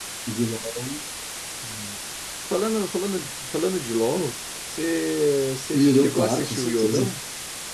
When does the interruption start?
5.7 s

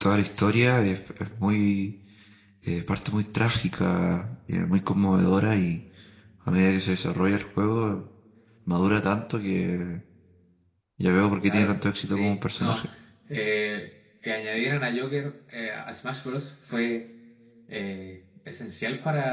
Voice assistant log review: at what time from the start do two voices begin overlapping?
11.4 s

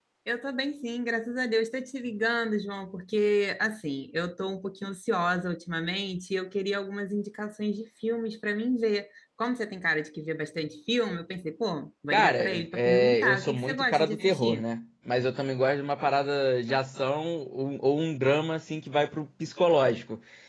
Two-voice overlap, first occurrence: 12.1 s

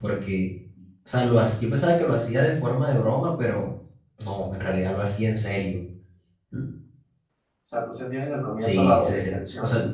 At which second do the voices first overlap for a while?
8.6 s

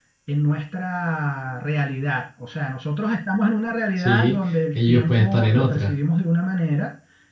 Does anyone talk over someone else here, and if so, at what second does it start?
4.0 s

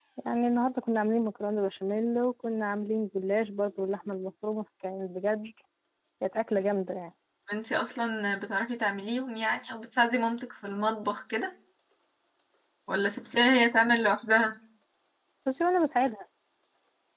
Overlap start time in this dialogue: none

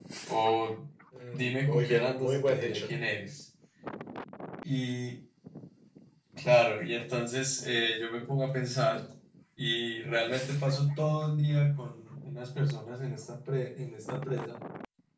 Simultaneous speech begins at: 1.3 s

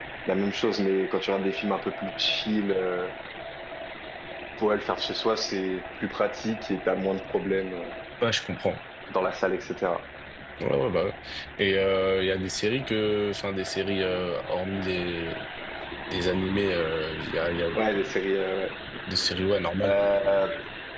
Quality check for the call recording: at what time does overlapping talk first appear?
none

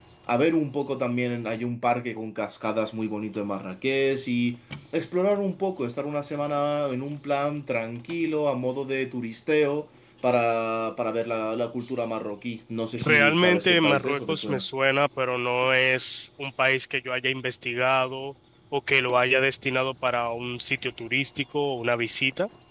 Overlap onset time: 13.0 s

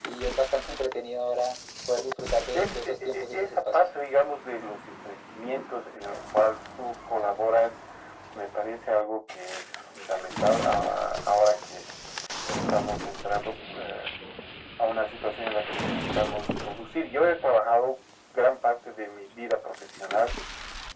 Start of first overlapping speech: 2.5 s

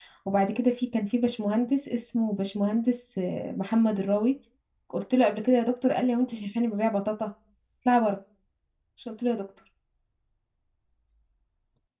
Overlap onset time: none

